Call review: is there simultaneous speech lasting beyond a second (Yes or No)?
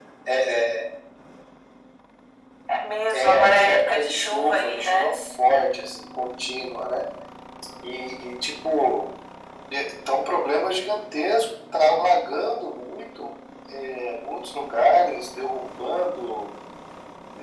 Yes